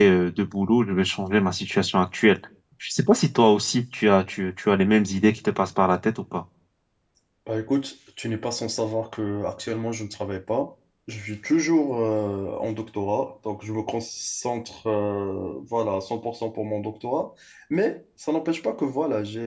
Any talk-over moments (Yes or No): No